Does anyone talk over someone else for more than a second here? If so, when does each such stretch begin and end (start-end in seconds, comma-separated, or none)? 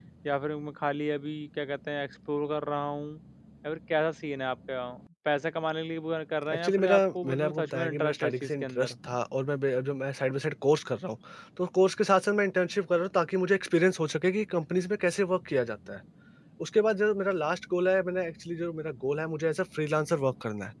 6.5-8.9